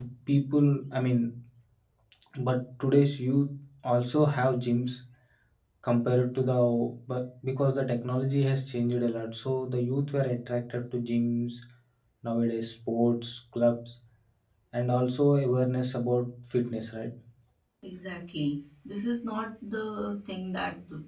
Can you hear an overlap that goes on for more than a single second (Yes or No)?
No